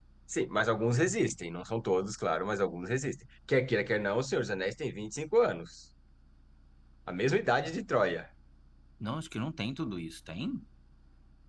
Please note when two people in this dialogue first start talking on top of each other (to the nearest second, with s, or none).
none